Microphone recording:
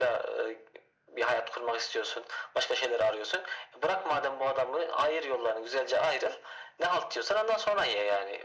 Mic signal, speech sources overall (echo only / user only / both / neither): echo only